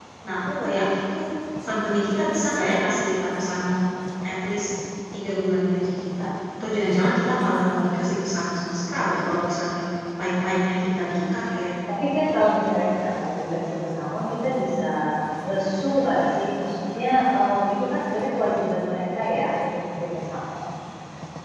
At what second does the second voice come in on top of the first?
none

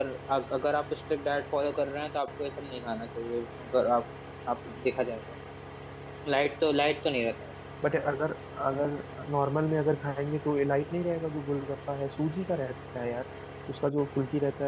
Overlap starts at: none

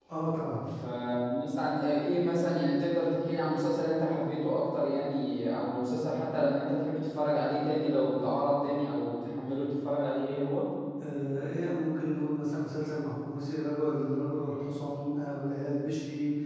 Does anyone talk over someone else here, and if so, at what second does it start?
none

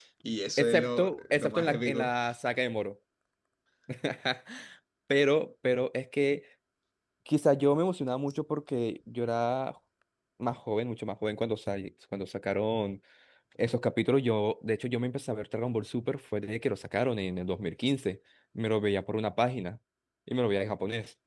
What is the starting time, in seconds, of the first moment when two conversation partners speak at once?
0.6 s

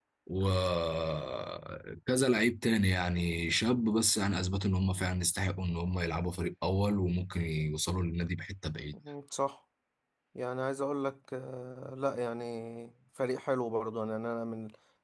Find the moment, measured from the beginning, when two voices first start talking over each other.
none

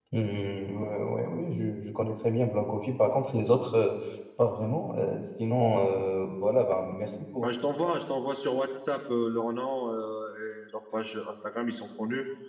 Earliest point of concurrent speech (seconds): none

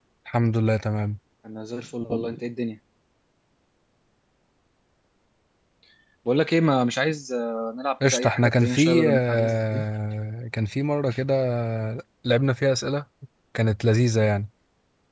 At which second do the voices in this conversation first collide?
8.0 s

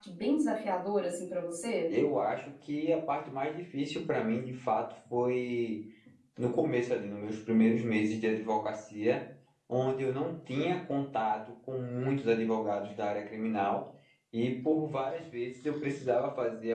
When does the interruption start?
none

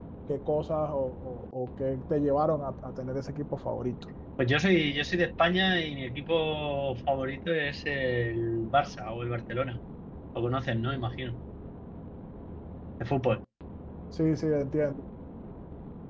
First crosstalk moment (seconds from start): none

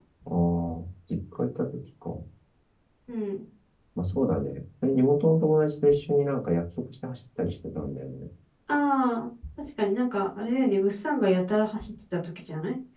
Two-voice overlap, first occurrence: none

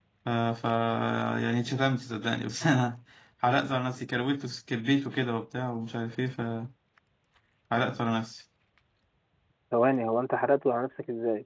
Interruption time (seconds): none

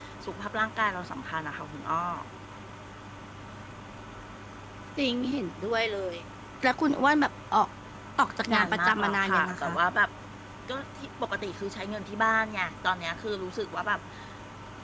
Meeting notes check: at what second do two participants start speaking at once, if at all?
8.5 s

